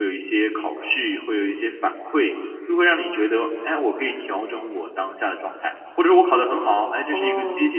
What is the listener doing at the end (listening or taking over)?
listening